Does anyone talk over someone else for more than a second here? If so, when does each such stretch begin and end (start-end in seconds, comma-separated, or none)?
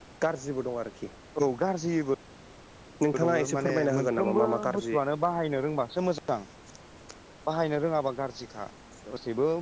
3.2-5.0